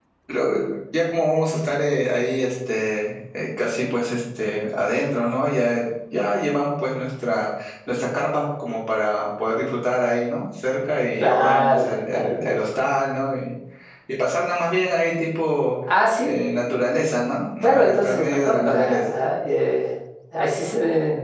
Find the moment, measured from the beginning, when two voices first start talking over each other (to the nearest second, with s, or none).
11 s